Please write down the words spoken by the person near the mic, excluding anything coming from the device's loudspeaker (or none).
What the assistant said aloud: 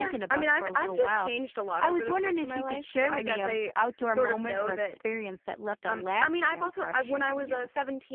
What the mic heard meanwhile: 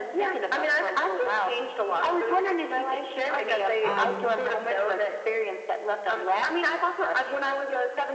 um